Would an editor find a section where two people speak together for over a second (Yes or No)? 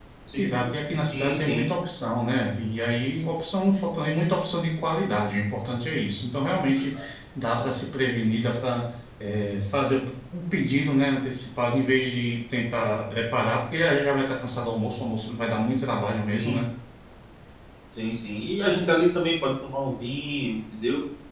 Yes